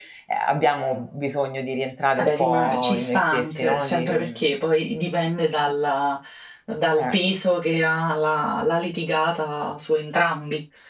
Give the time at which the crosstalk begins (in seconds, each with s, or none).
2.2 s